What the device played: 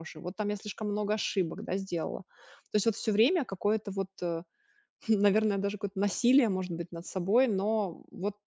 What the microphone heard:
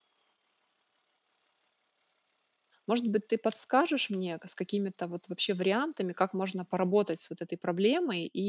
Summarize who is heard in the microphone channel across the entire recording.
user only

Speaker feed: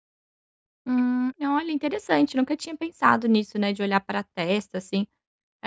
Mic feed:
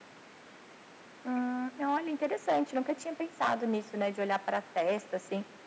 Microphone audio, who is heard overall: echo only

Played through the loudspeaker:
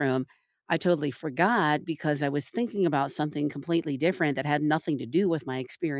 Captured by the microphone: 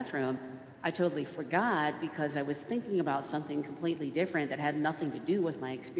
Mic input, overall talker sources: echo only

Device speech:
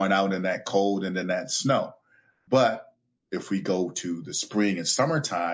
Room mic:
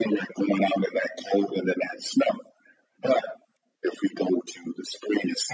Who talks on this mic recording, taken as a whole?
echo only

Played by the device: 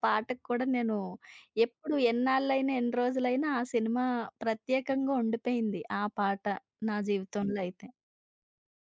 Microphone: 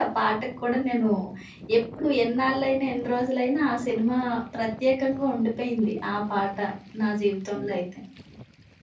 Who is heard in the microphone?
echo only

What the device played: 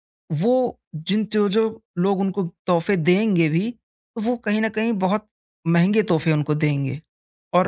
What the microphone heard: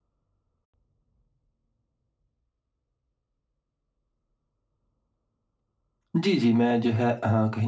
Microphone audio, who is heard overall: user only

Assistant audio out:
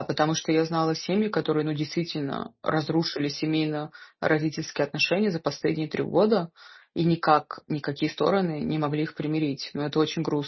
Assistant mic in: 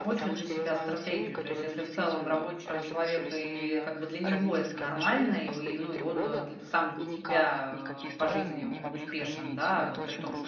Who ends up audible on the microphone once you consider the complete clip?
both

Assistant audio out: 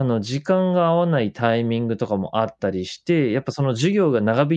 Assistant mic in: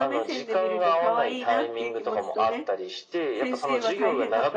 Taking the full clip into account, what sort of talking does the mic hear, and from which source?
both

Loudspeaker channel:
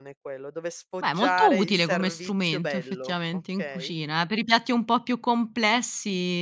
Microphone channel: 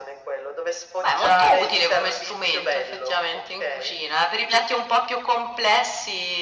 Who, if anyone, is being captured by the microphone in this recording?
echo only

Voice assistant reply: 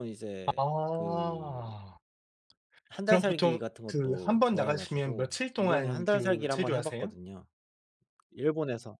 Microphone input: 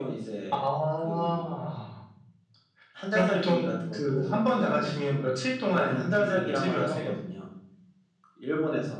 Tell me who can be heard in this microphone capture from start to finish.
echo only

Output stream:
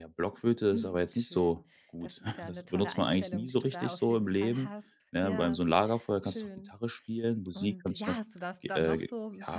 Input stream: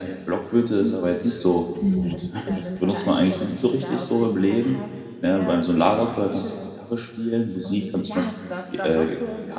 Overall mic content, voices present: both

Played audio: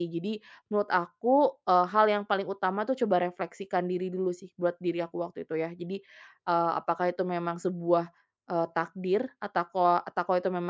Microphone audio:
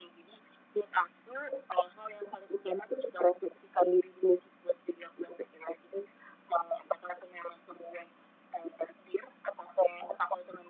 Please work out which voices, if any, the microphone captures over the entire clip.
echo only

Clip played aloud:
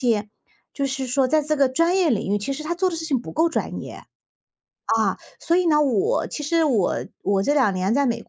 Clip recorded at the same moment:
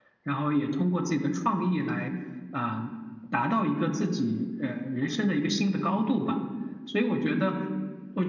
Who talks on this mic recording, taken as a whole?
user only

